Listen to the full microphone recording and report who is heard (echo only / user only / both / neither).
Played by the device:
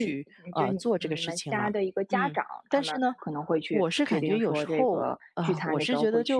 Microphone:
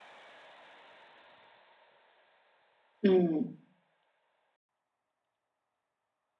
user only